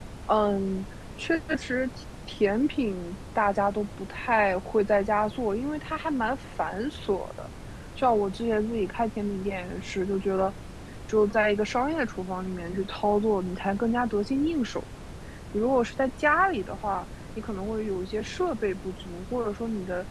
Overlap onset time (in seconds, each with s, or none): none